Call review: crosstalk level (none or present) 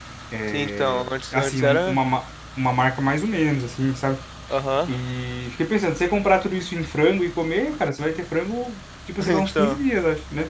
present